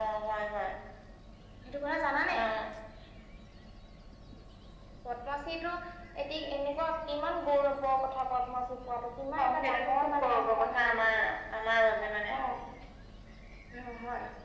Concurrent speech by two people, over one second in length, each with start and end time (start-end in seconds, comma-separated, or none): 9.4-11.2